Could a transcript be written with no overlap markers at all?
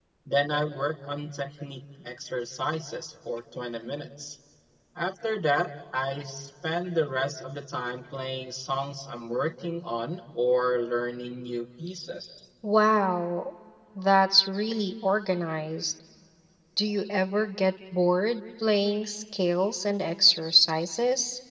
Yes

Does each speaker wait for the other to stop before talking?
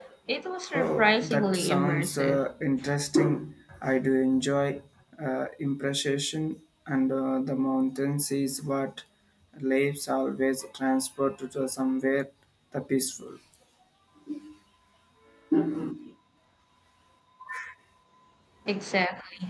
No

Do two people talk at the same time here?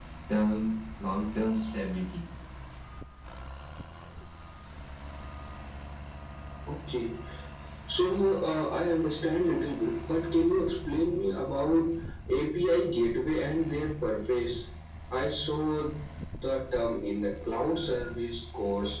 No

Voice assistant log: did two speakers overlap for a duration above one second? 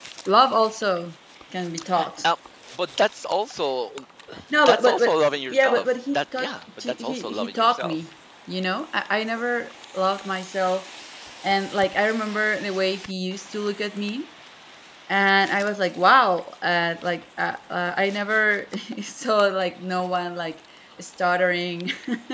Yes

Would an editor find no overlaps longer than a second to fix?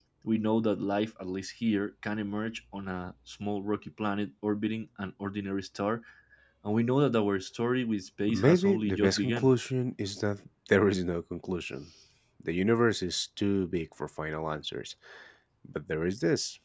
No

